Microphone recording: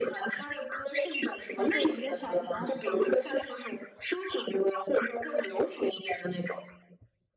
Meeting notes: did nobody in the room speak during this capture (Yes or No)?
No